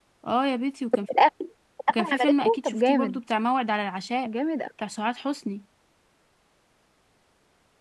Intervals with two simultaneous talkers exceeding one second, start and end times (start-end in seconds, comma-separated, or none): 1.9-3.2